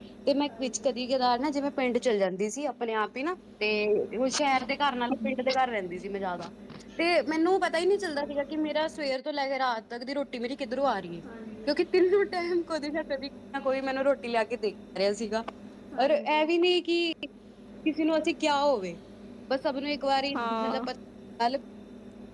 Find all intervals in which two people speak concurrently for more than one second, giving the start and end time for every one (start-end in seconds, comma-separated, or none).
none